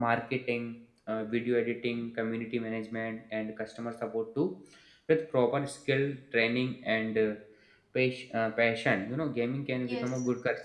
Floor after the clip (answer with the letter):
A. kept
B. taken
B